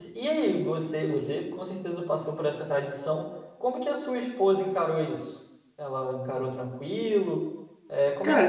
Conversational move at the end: taking over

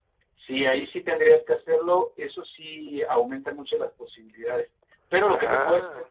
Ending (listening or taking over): listening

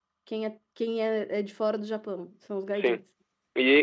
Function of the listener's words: taking over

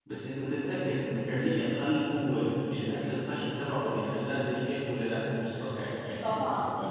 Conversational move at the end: taking over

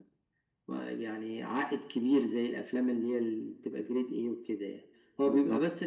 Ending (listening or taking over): listening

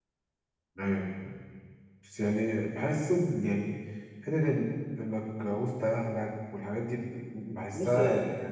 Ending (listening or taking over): taking over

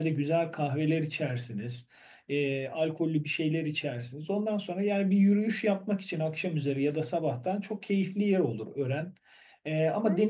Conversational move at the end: listening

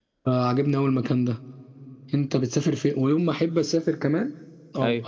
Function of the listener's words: listening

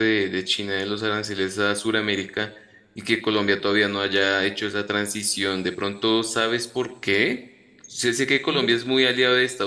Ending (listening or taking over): listening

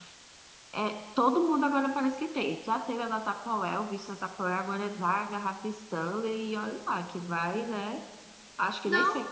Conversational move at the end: taking over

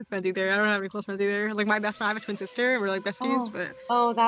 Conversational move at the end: taking over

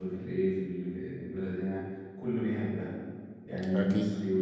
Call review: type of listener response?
listening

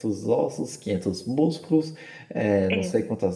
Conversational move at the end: listening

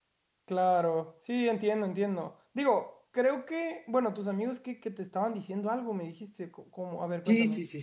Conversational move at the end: taking over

